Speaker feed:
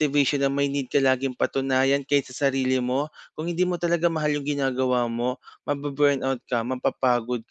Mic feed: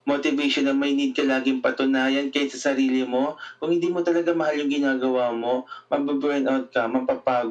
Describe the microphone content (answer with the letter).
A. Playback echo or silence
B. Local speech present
A